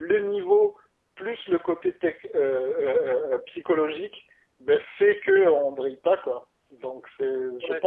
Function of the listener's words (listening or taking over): taking over